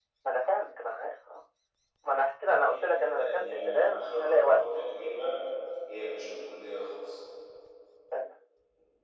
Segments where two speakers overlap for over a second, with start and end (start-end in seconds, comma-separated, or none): 2.6-4.6